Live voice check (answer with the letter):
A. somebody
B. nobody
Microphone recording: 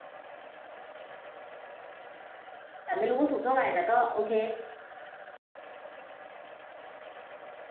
A